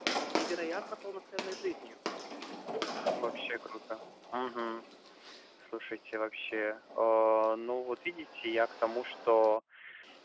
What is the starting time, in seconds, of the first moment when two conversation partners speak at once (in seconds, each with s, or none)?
none